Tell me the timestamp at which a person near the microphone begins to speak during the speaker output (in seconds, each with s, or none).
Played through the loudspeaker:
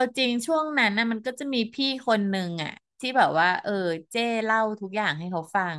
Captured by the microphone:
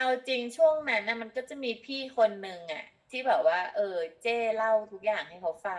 none